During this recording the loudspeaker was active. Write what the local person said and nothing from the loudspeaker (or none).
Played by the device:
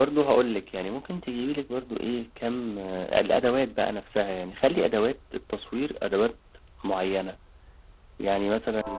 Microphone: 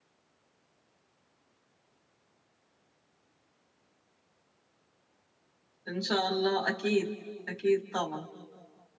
ان شاء الله اكيد اكيد طبعا